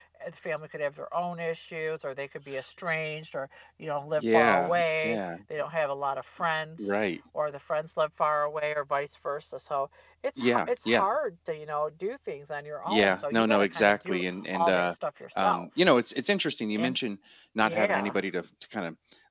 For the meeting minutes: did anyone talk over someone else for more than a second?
Yes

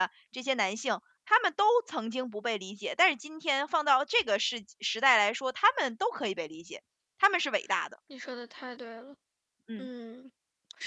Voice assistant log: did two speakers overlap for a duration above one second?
No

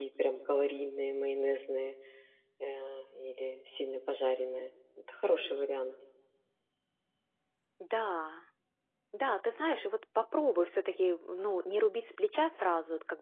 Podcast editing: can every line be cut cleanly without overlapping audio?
Yes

